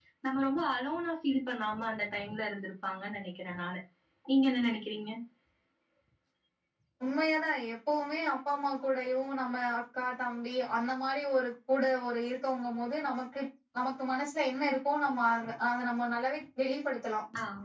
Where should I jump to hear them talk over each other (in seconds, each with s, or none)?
none